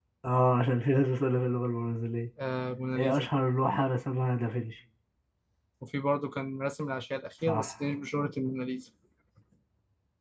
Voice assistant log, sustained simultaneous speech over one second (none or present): none